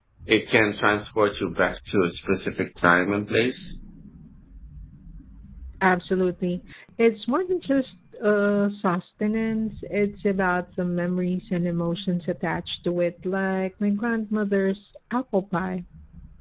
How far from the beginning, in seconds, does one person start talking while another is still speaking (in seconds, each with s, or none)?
none